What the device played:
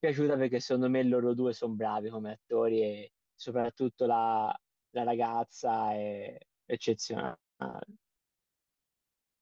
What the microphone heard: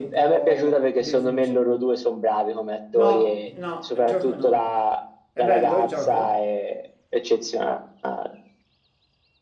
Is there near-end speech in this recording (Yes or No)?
Yes